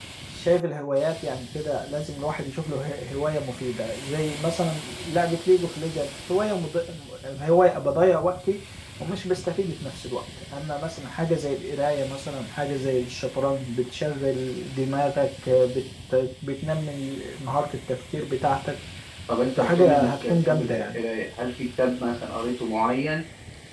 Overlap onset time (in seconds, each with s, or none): 19.6 s